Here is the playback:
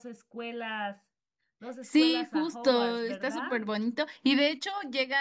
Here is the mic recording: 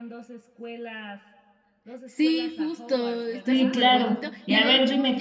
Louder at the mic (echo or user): user